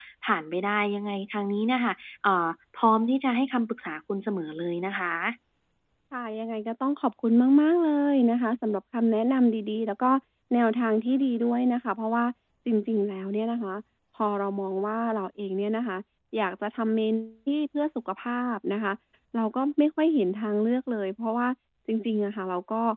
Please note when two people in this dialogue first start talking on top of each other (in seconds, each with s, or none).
none